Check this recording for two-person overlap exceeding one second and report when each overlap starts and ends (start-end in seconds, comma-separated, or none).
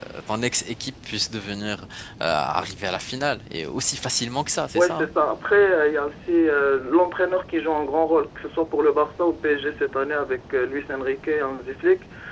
none